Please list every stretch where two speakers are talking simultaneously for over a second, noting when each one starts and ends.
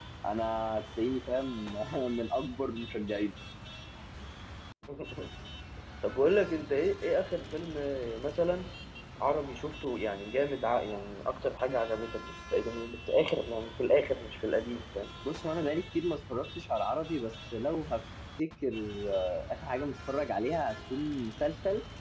none

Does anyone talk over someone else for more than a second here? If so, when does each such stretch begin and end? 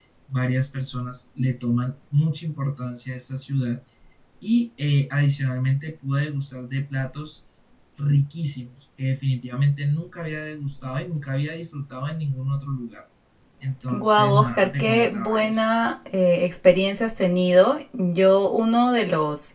13.9-15.6

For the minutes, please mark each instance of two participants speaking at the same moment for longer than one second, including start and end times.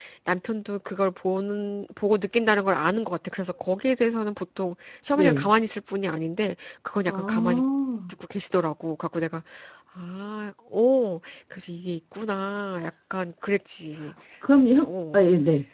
none

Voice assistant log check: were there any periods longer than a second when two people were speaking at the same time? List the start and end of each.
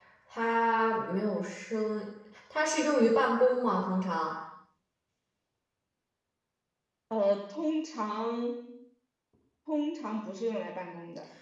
none

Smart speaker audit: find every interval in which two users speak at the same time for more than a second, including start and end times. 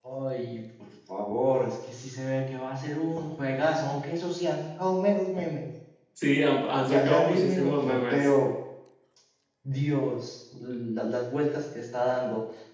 6.8-8.3

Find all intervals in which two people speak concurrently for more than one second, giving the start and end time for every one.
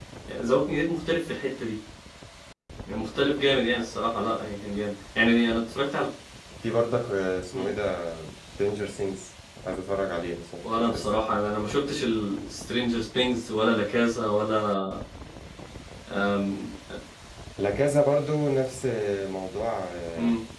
none

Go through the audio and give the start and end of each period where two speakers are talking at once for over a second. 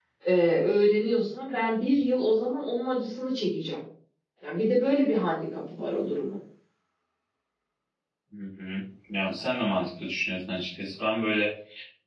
none

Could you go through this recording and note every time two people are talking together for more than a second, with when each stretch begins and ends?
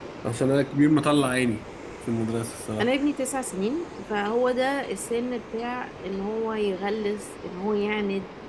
none

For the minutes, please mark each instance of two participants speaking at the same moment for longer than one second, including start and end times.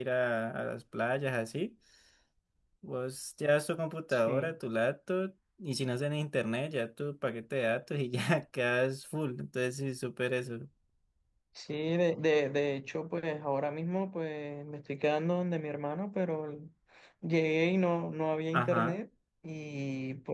none

